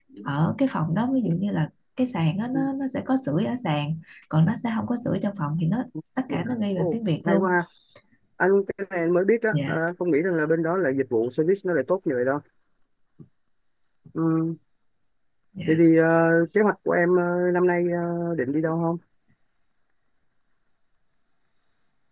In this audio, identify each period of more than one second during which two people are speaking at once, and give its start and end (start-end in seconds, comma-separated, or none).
6.3-7.5